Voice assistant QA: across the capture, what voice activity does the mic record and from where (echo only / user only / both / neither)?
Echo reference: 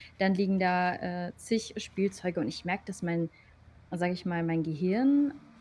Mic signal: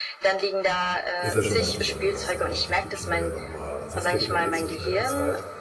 both